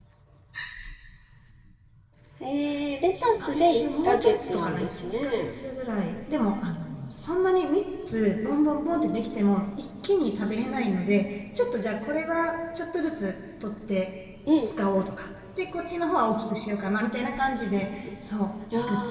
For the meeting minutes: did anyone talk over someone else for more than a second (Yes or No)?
Yes